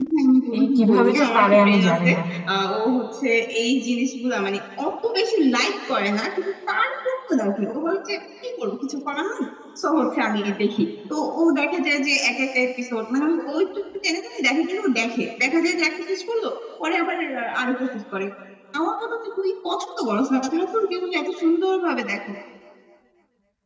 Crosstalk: present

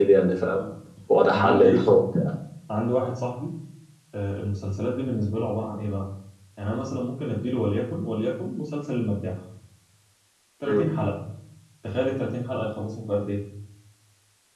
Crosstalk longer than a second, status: none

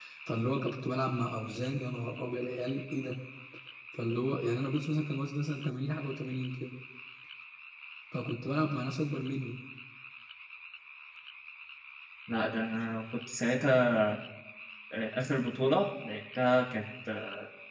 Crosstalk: none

